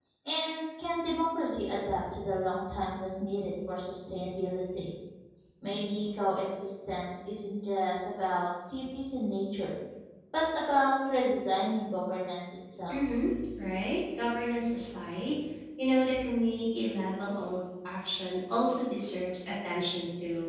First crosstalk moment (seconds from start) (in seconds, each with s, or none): none